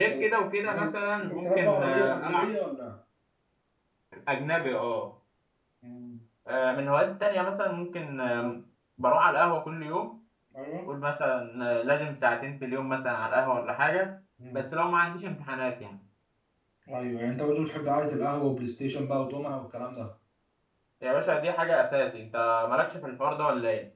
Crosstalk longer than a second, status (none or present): present